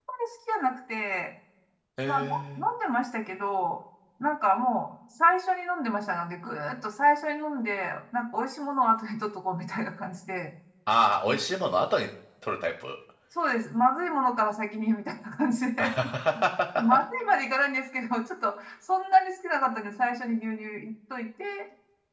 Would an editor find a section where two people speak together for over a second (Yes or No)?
No